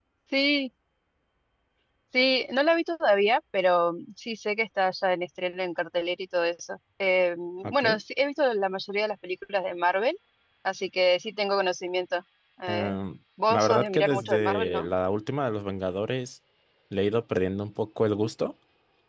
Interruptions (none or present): present